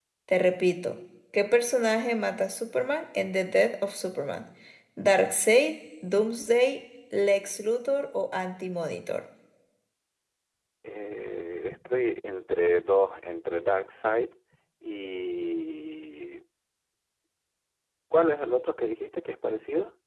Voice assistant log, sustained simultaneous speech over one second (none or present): none